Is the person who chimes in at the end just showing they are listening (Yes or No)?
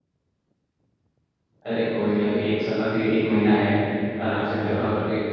Yes